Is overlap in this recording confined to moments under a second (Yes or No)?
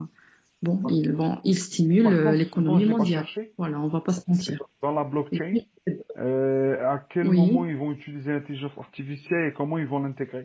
No